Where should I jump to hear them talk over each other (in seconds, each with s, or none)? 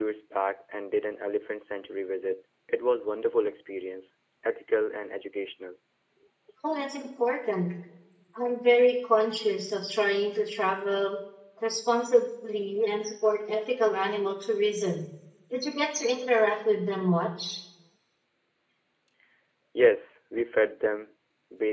none